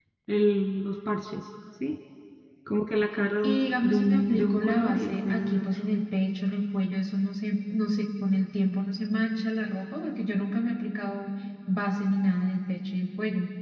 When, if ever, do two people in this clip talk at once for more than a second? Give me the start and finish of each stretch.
3.4-5.6

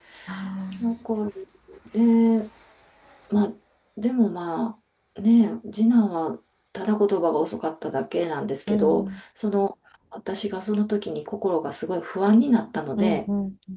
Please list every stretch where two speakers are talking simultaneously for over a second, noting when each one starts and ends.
none

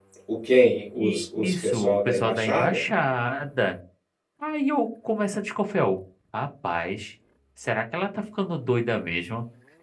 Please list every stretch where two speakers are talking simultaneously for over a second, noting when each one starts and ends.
1.0-2.8

